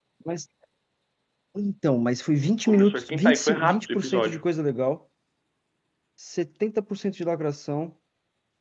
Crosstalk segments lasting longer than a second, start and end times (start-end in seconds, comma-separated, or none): 2.7-4.5